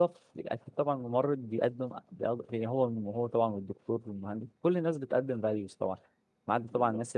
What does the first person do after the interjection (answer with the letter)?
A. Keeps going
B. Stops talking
A